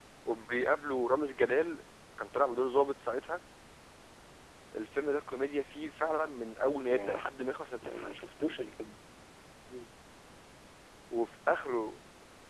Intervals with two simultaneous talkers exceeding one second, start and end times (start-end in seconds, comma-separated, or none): none